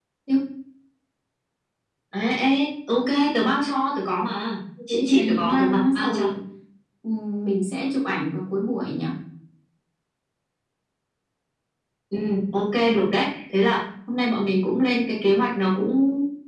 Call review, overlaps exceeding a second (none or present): present